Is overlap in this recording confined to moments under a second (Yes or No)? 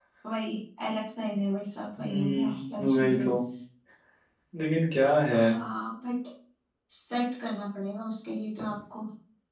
No